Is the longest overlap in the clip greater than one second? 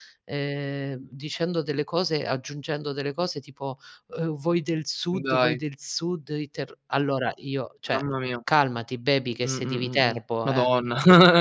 Yes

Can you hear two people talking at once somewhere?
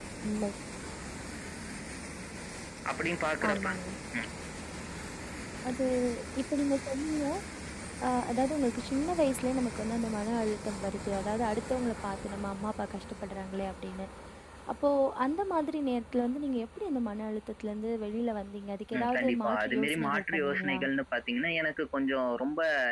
Yes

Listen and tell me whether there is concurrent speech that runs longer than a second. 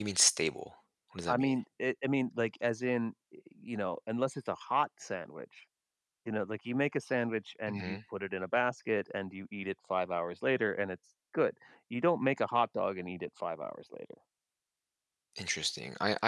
No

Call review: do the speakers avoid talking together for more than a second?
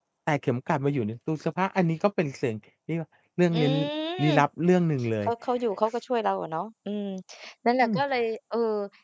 Yes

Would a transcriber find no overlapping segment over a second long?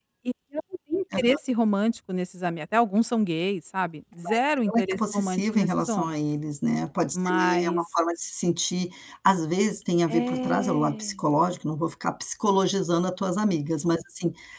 No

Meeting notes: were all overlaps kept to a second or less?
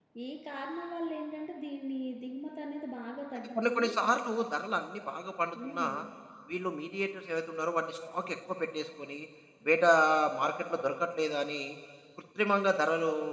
Yes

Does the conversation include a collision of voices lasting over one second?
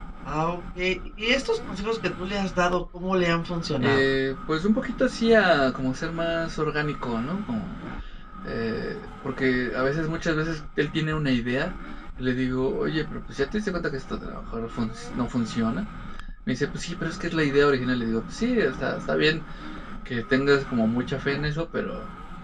No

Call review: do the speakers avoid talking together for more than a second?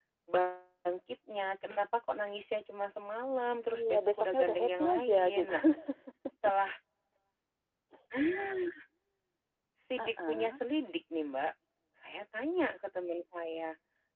No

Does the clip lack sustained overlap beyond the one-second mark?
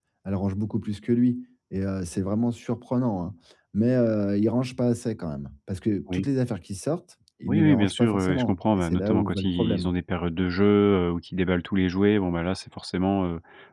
No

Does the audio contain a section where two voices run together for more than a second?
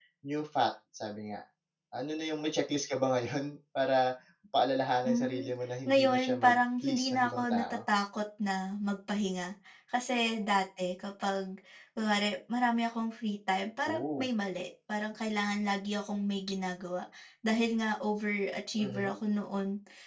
Yes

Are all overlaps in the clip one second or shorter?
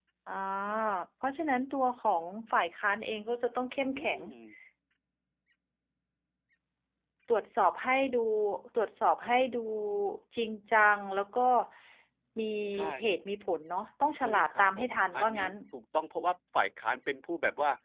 No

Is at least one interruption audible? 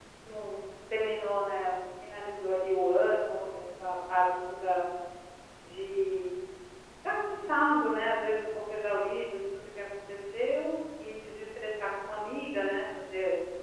No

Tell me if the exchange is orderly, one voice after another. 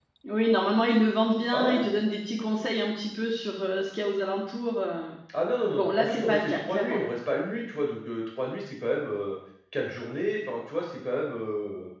No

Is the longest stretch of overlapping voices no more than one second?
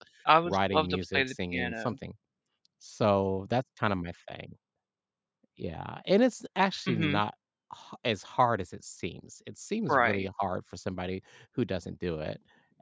No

